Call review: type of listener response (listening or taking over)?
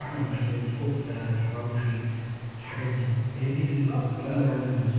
taking over